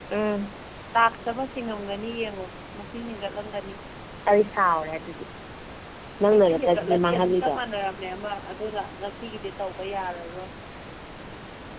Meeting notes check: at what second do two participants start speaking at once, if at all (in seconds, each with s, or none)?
6.3 s